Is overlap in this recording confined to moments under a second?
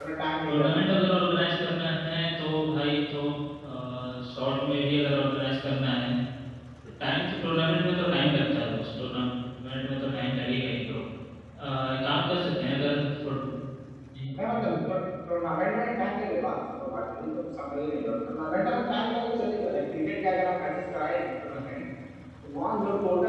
Yes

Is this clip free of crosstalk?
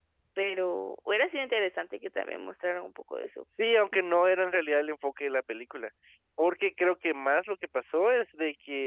Yes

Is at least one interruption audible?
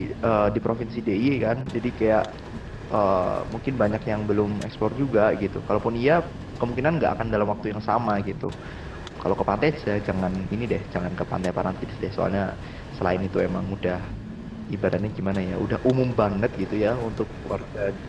No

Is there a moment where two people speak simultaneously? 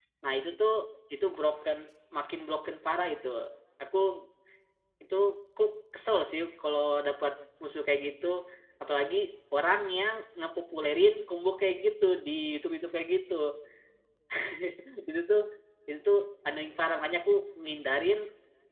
No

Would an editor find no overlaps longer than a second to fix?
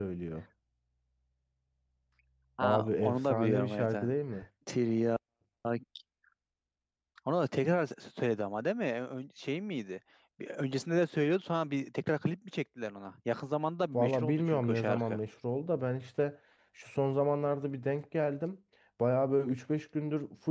No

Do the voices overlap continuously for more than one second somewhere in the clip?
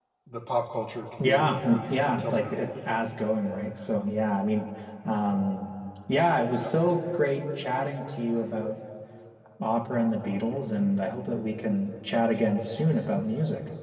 Yes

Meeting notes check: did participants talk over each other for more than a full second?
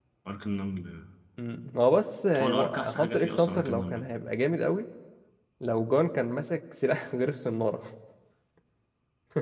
Yes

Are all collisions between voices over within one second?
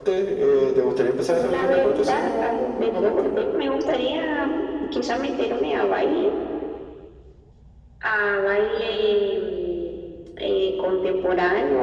No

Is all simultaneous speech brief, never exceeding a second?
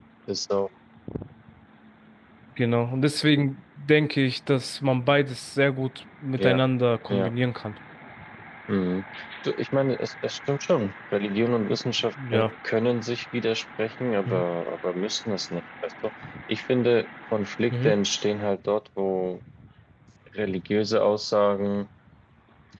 Yes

